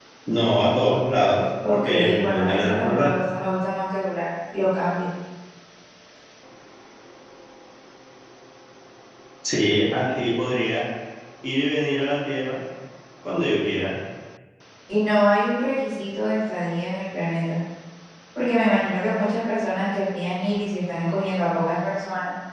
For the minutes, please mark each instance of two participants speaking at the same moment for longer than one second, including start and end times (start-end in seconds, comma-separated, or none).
1.7-3.1